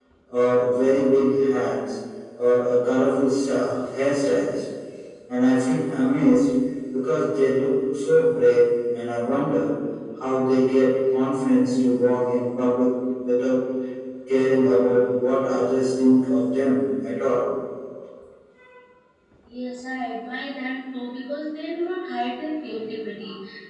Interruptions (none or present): none